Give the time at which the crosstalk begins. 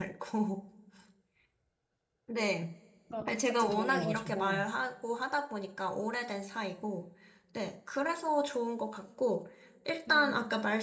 3.3 s

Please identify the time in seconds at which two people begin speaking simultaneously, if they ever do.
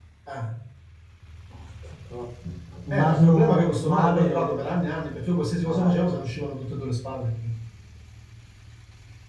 2.9 s

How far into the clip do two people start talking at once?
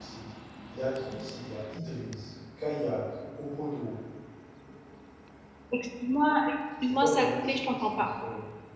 6.8 s

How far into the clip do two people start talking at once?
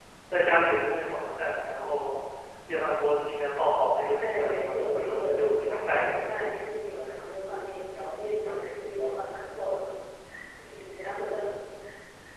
4.2 s

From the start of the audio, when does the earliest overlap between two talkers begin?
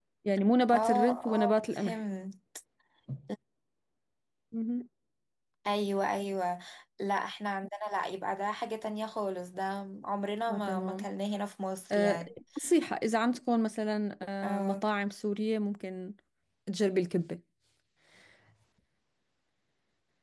0.7 s

